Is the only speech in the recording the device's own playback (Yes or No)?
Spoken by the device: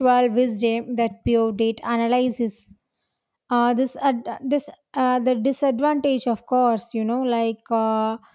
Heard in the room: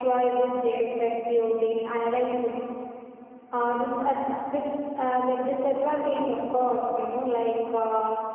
Yes